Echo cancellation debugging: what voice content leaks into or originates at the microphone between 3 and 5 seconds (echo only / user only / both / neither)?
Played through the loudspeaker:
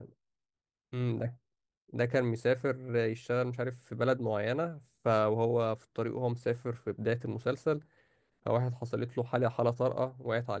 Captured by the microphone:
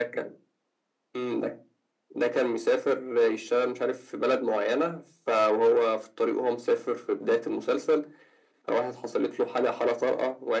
echo only